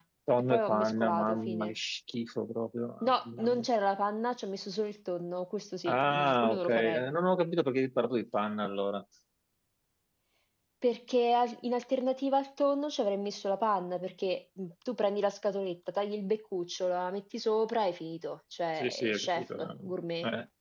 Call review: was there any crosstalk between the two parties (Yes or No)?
Yes